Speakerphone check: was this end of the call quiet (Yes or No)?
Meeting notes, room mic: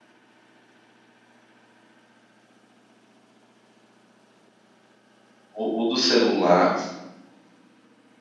No